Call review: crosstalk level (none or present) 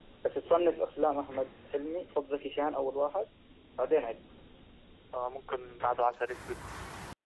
none